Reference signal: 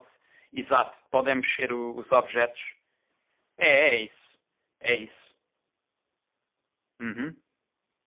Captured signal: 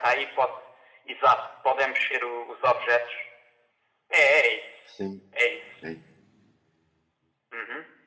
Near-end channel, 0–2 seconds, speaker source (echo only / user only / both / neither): echo only